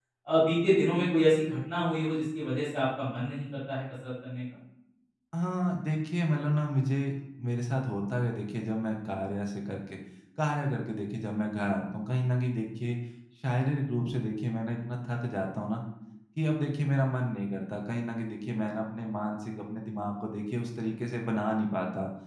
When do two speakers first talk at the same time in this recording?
none

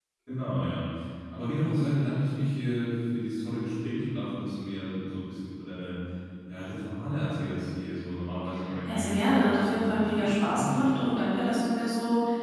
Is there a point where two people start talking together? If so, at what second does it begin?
8.9 s

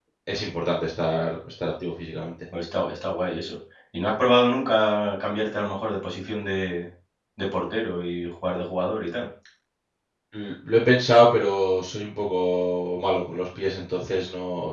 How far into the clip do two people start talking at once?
none

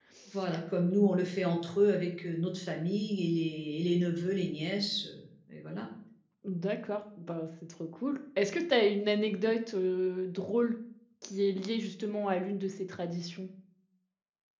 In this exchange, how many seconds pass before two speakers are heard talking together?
none

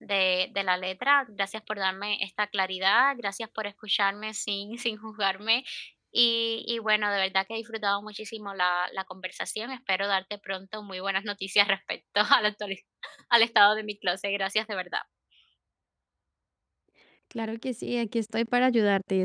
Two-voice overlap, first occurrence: none

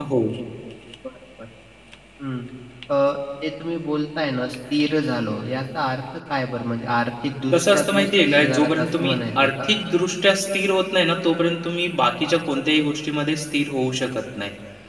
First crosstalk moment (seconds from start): 7.5 s

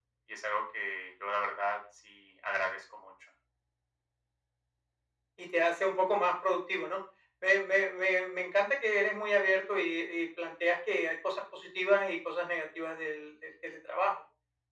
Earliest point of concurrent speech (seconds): none

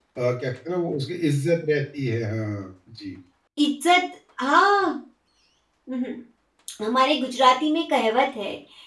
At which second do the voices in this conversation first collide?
none

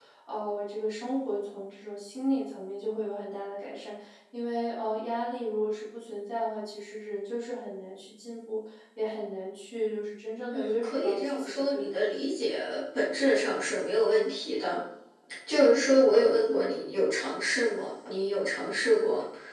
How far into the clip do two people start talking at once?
10.5 s

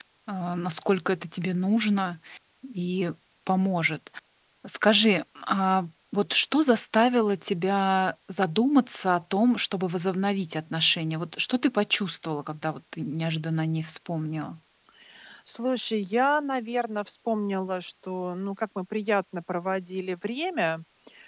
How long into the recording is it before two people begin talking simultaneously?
none

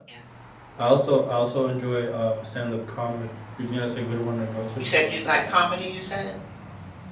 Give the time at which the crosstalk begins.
none

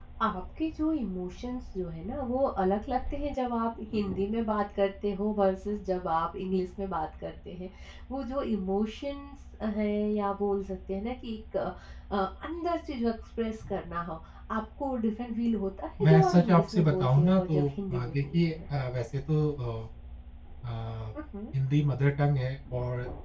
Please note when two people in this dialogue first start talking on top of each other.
16.0 s

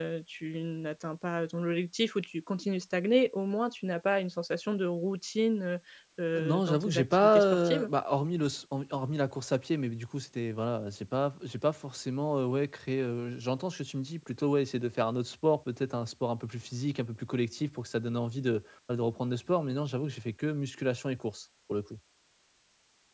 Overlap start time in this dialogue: 6.6 s

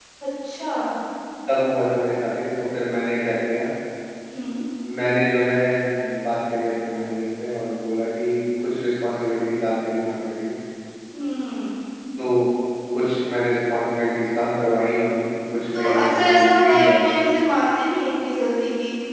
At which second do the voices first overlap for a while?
15.7 s

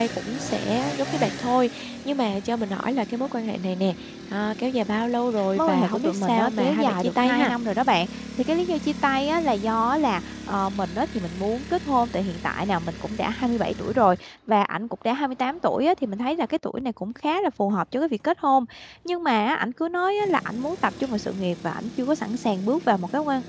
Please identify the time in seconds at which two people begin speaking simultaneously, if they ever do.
5.6 s

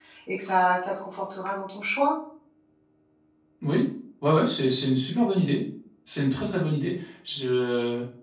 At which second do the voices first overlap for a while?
none

